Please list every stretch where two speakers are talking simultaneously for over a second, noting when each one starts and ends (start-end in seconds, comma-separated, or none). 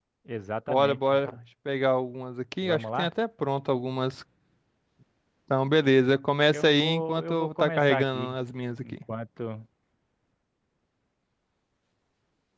6.5-8.3